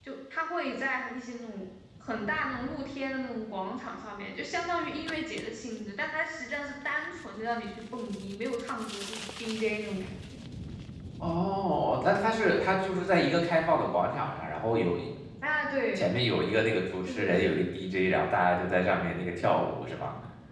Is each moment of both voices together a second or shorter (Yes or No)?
Yes